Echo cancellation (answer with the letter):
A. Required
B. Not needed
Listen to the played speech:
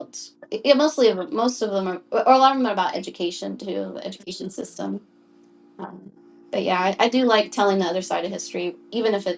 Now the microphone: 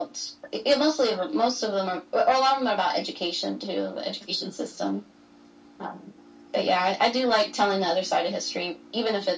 A